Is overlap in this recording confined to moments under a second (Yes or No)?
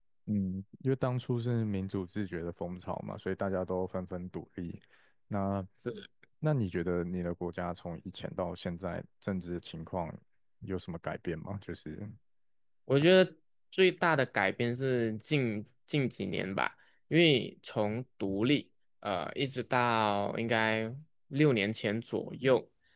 Yes